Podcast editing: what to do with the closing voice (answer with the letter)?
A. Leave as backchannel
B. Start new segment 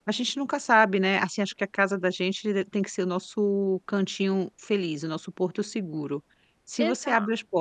A